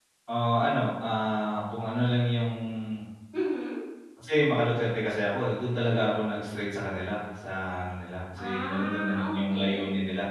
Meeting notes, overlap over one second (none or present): present